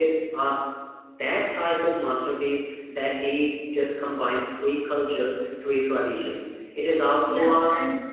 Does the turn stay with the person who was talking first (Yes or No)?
No